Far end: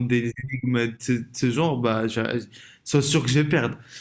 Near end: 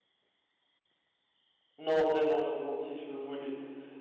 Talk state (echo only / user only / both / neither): user only